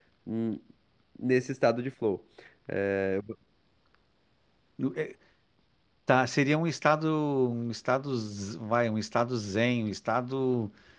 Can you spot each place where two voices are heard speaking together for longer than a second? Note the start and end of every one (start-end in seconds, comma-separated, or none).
none